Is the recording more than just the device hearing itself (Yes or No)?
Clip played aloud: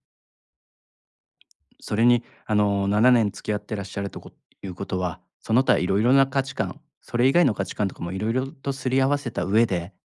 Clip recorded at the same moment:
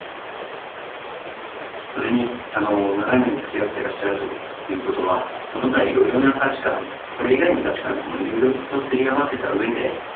No